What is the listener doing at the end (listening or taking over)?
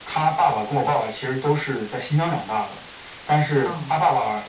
listening